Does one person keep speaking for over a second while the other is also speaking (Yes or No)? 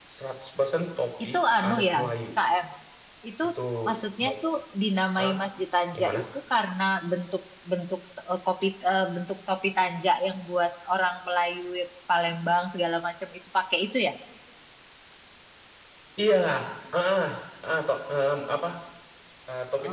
No